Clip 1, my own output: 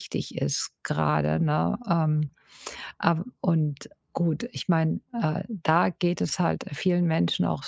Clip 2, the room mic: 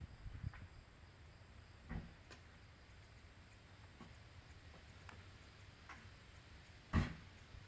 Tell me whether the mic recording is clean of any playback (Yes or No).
Yes